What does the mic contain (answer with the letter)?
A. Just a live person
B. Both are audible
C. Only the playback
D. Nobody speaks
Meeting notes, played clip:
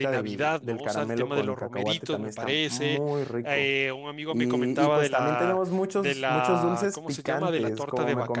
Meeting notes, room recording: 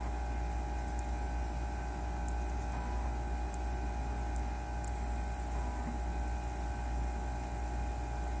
D